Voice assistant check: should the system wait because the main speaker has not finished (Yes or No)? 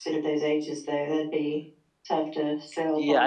No